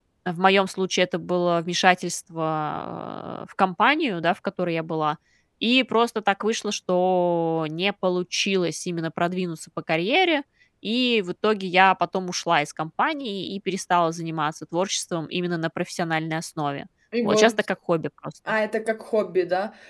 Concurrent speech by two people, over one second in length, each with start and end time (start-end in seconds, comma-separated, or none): none